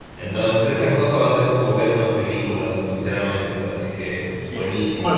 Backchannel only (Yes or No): No